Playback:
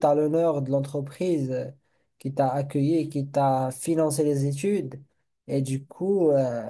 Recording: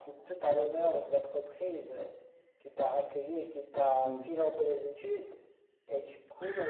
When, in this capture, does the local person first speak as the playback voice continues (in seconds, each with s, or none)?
4.0 s